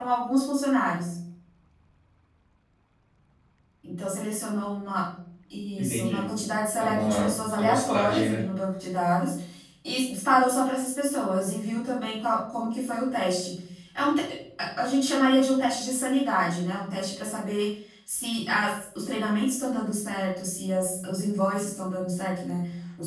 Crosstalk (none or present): present